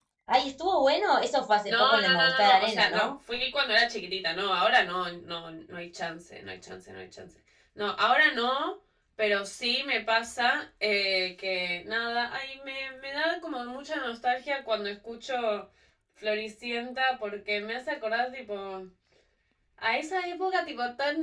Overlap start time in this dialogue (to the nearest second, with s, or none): 2 s